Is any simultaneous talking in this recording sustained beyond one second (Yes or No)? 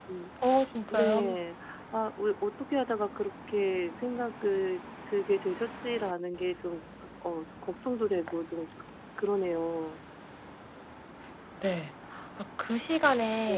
No